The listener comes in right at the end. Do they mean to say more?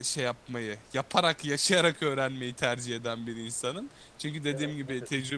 No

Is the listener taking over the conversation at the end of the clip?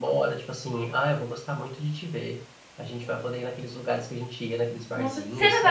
Yes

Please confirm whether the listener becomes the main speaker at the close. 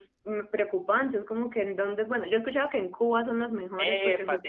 Yes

